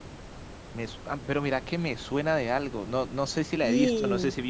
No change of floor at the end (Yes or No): Yes